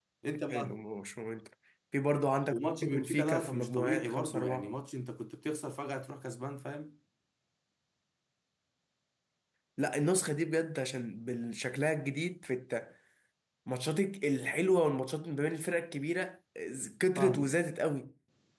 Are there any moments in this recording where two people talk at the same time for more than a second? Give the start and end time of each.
2.5-4.7

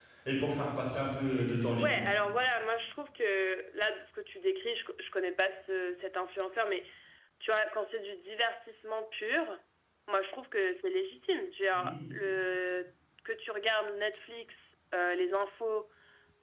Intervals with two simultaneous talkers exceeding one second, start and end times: none

